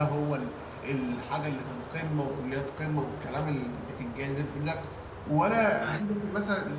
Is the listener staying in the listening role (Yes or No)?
Yes